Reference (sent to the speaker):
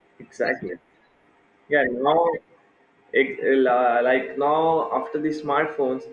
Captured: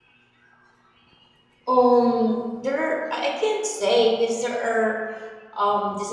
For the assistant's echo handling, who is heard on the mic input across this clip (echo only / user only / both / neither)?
user only